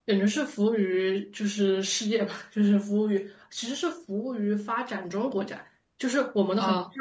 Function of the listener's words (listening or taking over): listening